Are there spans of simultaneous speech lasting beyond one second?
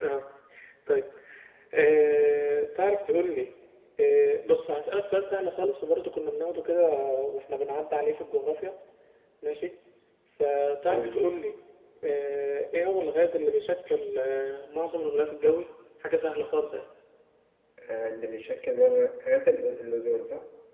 No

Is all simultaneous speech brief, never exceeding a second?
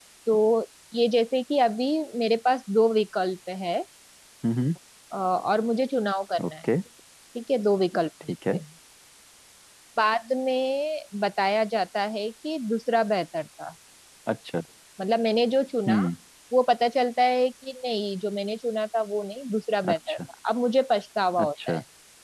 Yes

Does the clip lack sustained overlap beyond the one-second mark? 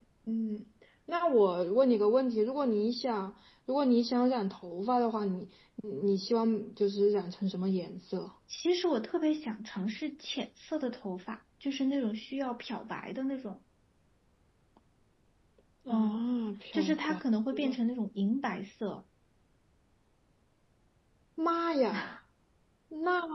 Yes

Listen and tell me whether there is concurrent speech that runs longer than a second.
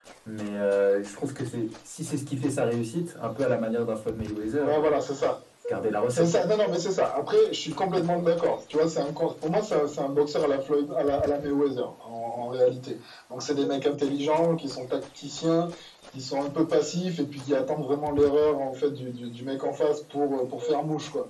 No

